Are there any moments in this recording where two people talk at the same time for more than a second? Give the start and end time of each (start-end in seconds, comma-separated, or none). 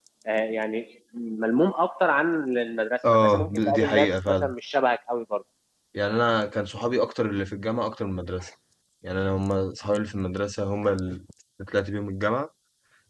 3.1-4.5